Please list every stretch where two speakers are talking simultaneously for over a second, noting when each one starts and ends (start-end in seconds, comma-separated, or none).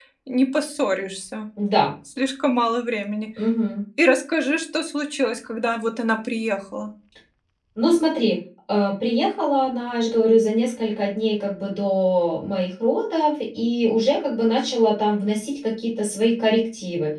none